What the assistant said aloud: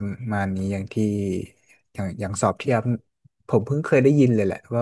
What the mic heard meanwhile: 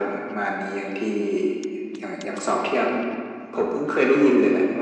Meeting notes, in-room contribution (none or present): none